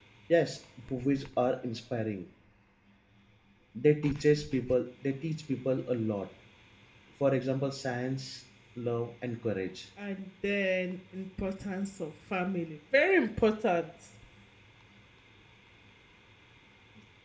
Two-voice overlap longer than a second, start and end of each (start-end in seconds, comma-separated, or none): none